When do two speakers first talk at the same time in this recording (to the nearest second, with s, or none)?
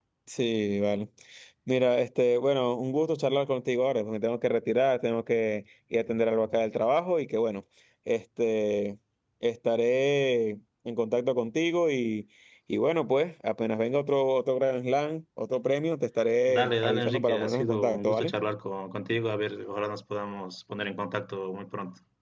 16 s